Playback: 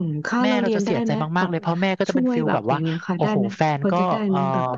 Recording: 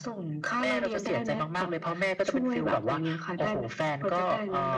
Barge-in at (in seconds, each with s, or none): none